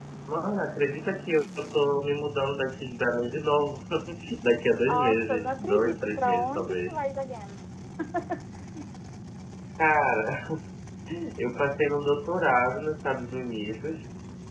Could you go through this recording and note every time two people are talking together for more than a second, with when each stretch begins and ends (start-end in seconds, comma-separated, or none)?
4.9-7.0